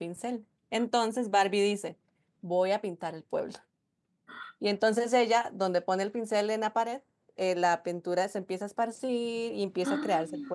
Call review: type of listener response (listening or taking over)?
listening